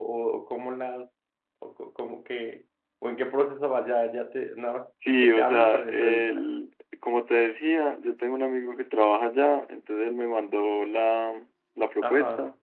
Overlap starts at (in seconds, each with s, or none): 5.2 s